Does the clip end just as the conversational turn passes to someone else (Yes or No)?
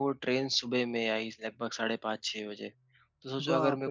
No